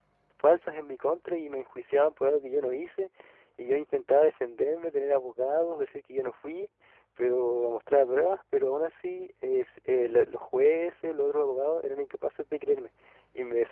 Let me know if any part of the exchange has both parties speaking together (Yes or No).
No